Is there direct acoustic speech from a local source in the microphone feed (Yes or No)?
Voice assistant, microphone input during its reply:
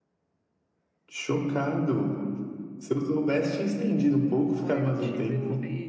Yes